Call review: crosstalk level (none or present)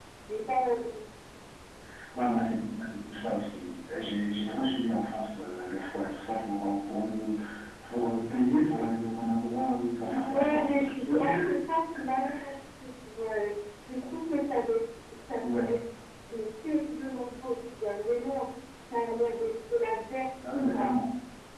present